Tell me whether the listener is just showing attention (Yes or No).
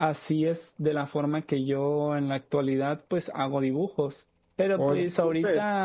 Yes